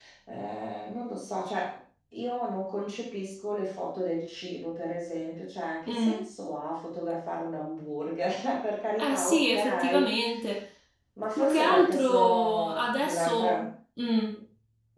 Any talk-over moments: Yes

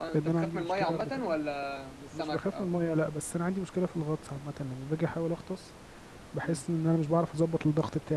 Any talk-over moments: Yes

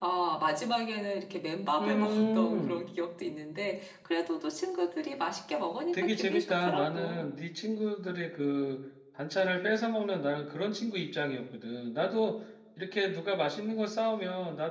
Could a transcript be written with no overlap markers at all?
No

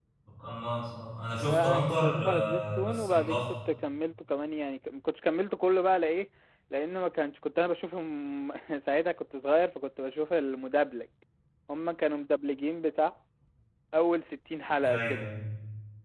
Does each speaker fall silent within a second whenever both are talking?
No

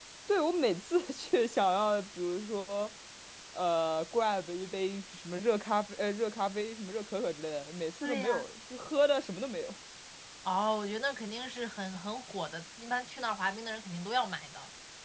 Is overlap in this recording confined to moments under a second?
Yes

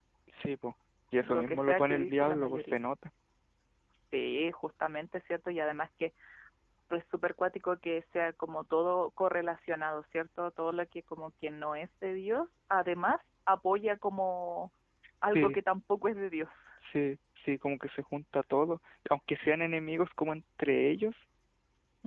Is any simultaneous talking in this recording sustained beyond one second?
Yes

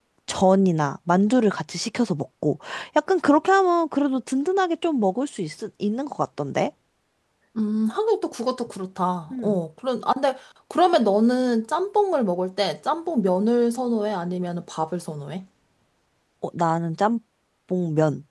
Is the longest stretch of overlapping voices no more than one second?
Yes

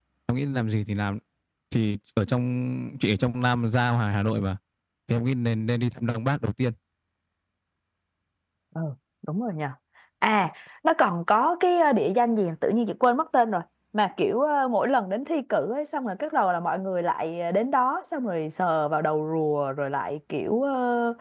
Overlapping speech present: No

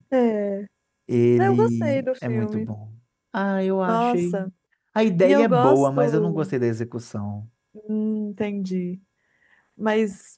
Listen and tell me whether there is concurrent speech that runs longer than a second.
Yes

